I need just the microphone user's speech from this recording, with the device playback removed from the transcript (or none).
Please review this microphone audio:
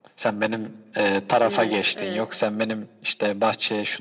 Evet. Evet.